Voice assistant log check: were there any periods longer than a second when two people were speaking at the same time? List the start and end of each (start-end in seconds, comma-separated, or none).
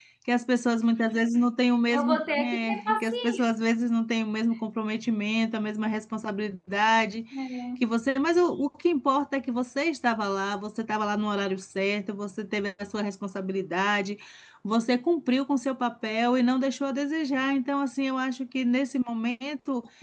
1.9-3.5